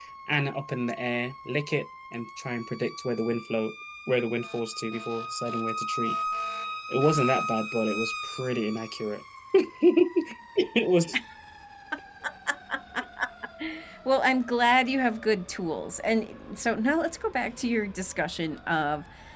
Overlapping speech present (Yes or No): No